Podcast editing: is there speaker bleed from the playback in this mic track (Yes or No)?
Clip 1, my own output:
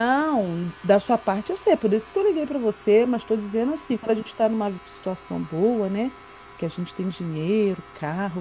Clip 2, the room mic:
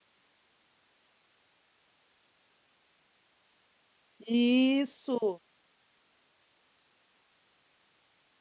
No